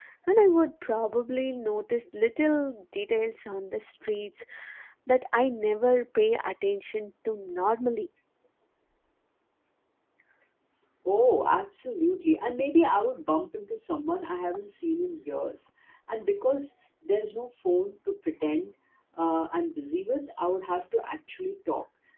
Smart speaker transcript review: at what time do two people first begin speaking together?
none

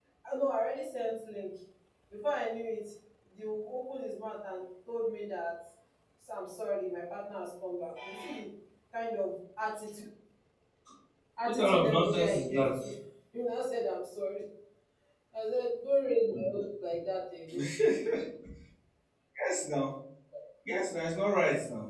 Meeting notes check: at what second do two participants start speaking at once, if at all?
11.4 s

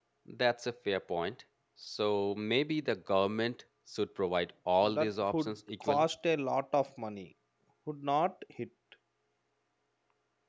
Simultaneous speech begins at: 4.8 s

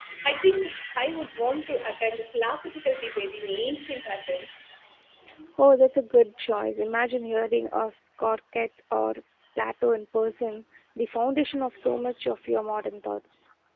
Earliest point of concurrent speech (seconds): none

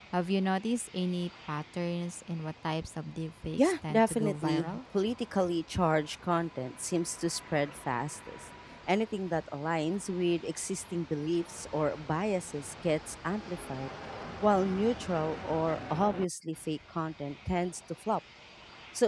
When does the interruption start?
3.6 s

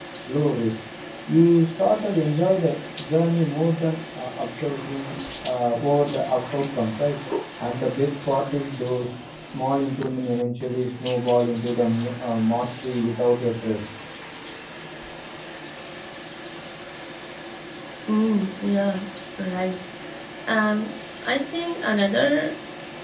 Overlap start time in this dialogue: none

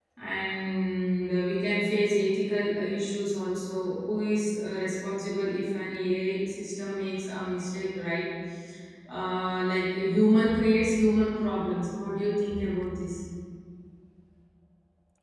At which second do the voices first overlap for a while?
none

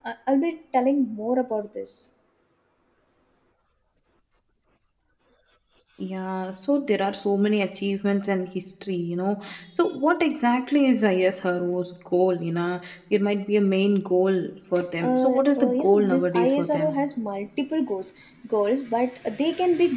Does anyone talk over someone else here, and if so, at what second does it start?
15.0 s

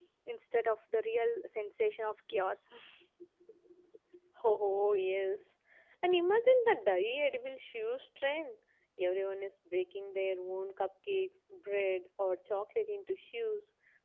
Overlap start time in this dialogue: none

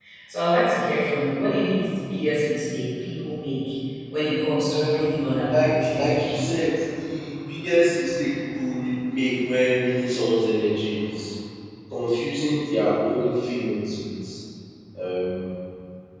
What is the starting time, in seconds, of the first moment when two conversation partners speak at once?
4.7 s

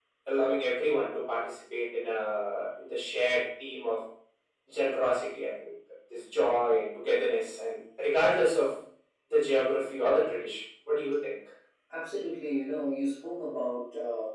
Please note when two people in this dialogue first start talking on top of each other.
none

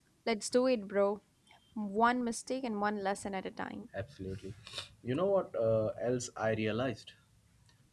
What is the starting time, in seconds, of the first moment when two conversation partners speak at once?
none

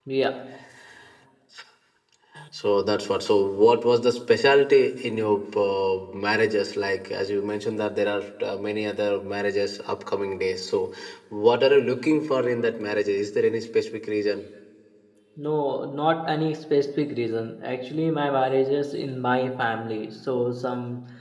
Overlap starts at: none

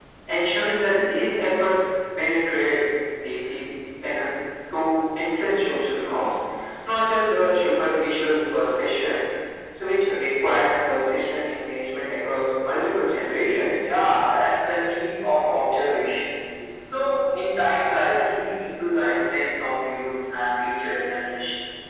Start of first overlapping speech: none

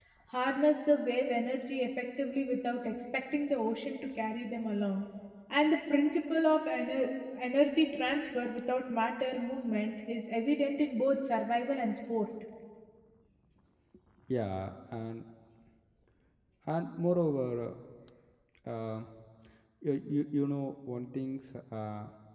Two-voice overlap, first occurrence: none

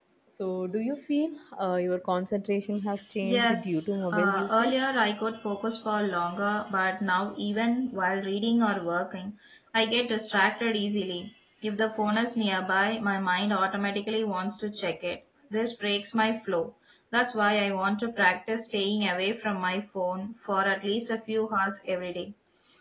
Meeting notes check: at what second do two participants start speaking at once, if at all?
3.2 s

